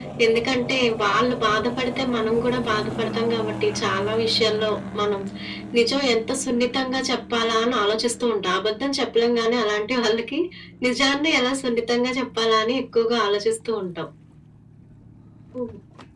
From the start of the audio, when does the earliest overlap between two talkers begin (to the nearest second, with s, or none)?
none